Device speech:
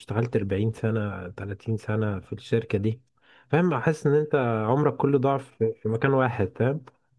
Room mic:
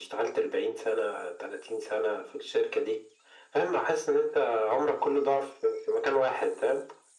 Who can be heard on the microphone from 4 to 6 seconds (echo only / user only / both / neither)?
echo only